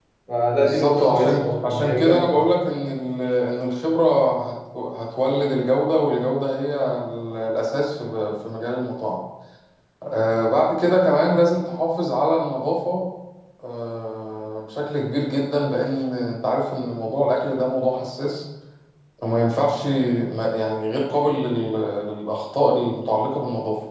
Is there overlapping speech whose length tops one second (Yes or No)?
Yes